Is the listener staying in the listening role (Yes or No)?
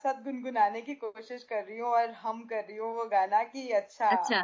Yes